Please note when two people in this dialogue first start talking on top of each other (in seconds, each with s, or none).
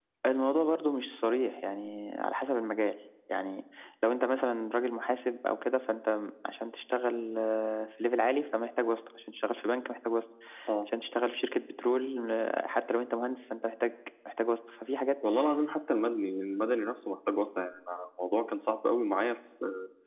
none